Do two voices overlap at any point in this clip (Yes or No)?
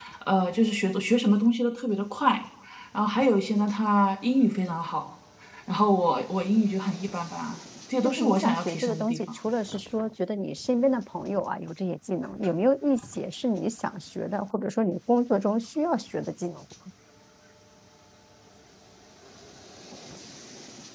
Yes